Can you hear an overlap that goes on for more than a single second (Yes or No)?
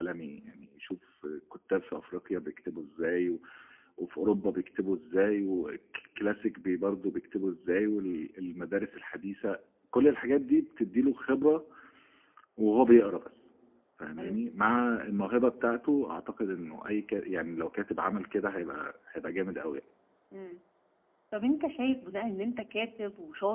No